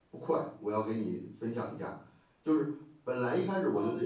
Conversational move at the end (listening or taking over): listening